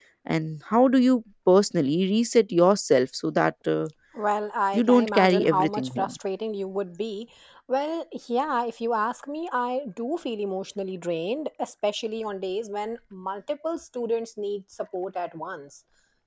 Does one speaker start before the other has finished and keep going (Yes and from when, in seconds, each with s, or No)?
Yes, from 4.7 s